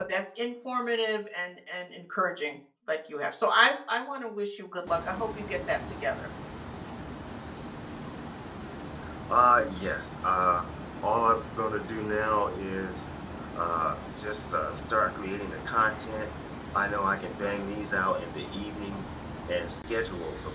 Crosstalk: none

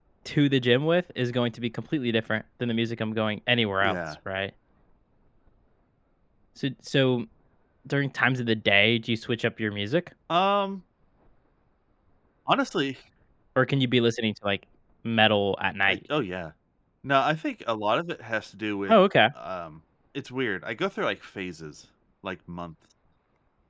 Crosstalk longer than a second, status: none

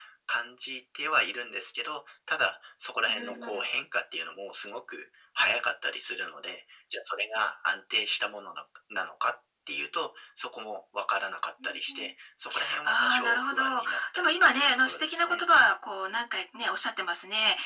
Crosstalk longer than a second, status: present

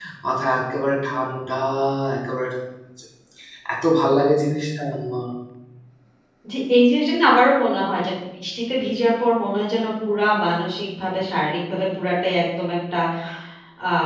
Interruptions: none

